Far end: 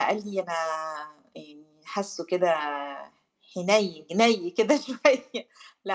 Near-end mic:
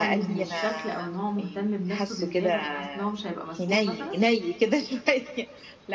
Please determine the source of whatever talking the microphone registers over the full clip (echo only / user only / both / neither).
both